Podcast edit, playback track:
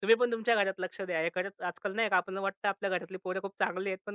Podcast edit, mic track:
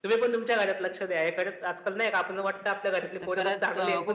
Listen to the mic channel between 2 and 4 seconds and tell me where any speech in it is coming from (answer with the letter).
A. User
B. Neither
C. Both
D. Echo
C